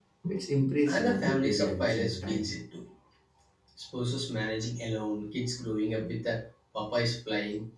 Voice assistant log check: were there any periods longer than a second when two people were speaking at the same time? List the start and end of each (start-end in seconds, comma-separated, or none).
0.9-2.5